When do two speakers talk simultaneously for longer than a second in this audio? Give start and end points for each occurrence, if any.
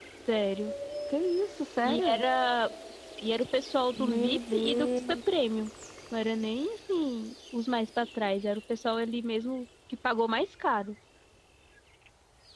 4.0-5.2

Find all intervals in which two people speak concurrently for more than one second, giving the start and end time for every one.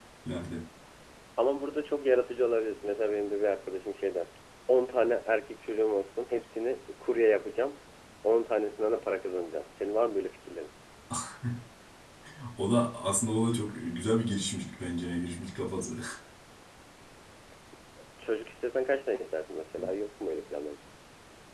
none

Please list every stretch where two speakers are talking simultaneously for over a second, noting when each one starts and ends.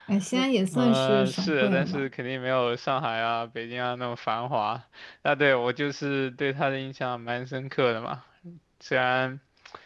0.7-2.1

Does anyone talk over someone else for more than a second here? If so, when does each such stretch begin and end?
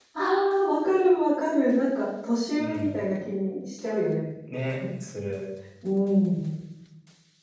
none

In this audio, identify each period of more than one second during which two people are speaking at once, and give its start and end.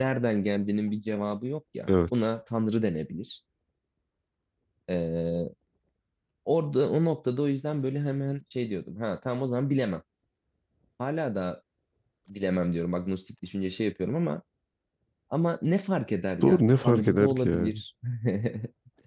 16.4-17.8

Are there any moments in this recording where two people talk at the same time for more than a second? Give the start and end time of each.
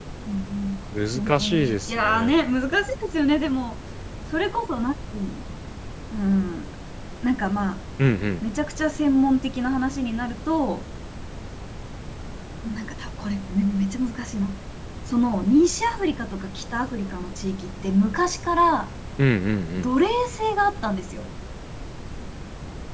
1.1-2.4

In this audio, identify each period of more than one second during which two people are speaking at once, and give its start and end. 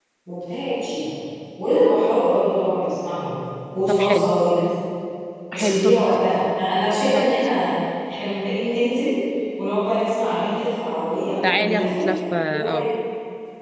11.6-12.9

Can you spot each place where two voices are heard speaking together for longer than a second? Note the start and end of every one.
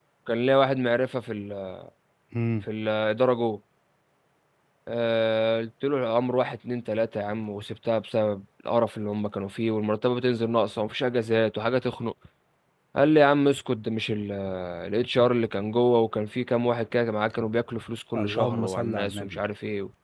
18.2-19.4

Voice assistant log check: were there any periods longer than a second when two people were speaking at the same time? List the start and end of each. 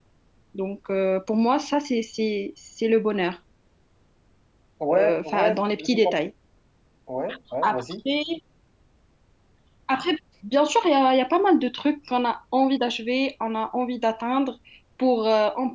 4.9-6.2

